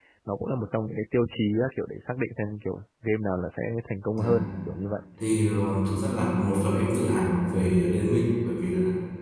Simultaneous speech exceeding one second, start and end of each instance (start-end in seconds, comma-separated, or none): none